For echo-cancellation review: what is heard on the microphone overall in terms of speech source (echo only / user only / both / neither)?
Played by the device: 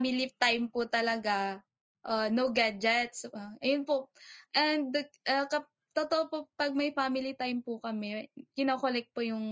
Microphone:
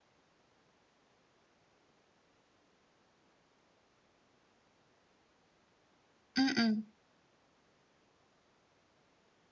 user only